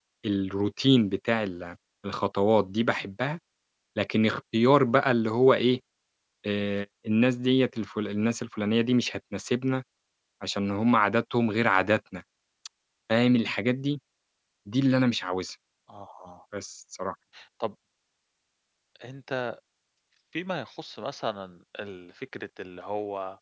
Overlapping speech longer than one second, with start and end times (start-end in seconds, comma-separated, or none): none